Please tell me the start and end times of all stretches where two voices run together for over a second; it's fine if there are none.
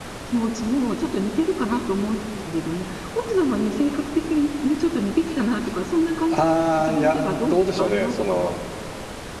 6.3-8.5

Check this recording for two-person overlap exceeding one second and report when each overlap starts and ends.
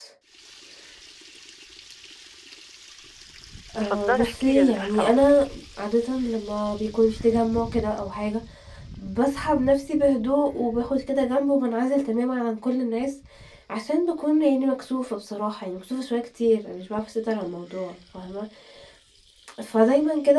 3.8-5.3

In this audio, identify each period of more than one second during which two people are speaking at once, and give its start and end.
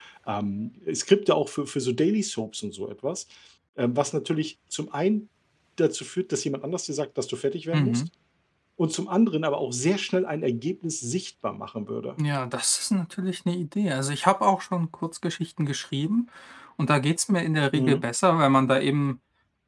none

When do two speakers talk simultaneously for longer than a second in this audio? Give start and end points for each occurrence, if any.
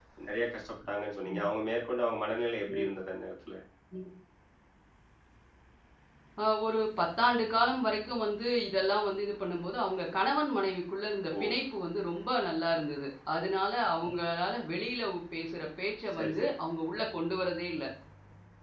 none

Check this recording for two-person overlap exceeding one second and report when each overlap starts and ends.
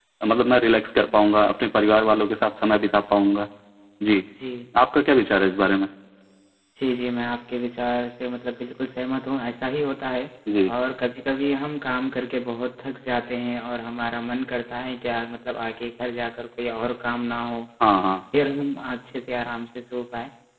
none

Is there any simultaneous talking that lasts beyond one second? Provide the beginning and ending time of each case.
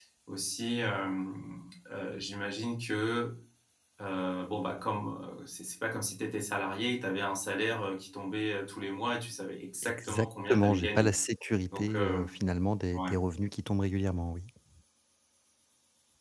9.8-11.1

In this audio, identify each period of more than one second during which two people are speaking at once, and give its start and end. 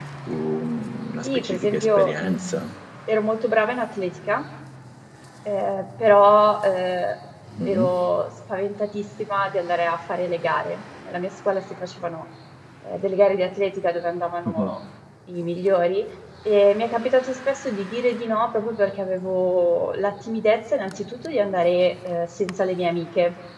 1.2-2.7

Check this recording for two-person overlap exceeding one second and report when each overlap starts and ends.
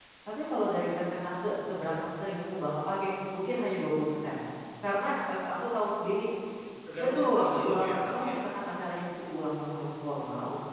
7.0-8.4

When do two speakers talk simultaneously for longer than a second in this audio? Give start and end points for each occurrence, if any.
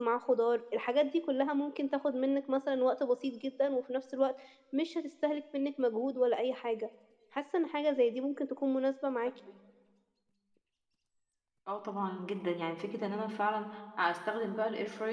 none

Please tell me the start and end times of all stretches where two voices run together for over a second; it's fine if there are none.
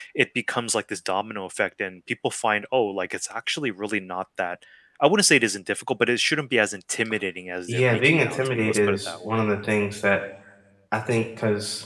7.7-9.4

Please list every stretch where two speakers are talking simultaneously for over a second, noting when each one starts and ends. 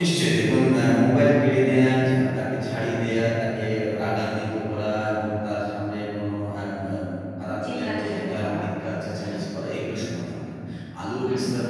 7.7-9.3

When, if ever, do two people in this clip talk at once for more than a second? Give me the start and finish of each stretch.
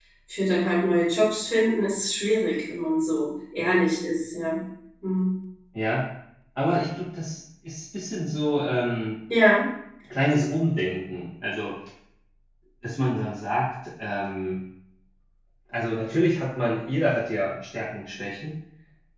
none

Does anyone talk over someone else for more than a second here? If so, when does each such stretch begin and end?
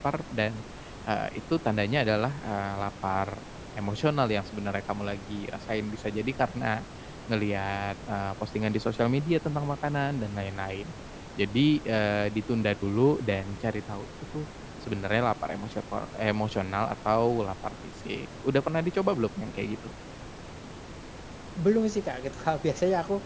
none

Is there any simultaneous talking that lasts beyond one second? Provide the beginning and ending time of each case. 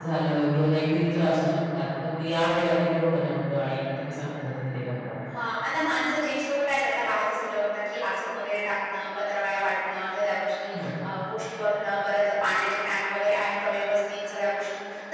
none

